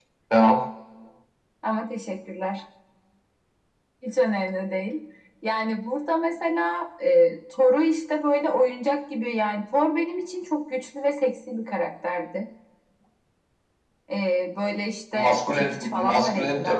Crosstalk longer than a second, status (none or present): present